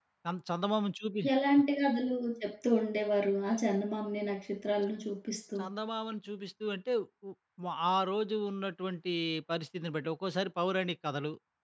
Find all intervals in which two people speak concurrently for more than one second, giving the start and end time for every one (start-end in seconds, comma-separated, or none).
none